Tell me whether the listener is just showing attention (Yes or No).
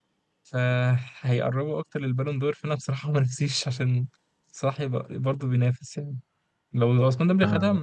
Yes